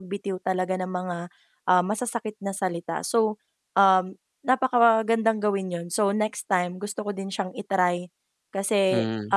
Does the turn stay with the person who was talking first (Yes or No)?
Yes